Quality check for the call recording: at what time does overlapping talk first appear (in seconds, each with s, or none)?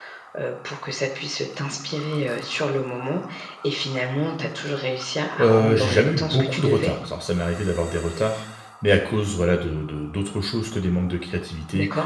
5.4 s